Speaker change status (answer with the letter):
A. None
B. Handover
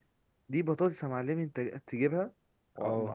A